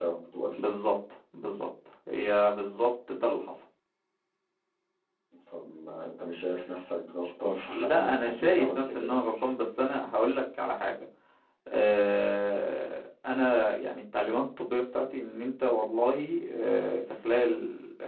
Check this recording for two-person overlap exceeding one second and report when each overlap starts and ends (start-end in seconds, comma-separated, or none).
7.7-9.2